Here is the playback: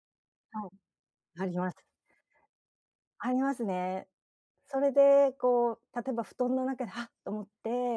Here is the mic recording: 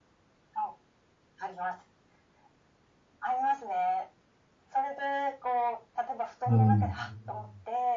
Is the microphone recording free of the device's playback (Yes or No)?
No